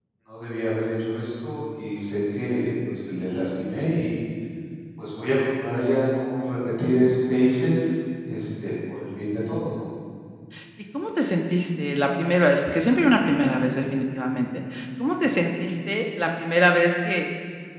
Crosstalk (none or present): none